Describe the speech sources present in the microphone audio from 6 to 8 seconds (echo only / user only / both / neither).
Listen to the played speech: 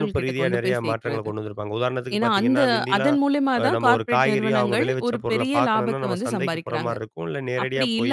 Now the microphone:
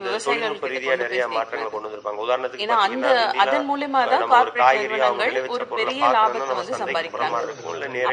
both